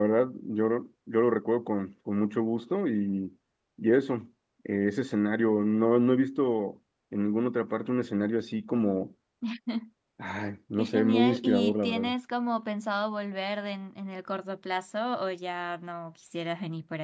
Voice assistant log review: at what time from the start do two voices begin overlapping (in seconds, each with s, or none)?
10.8 s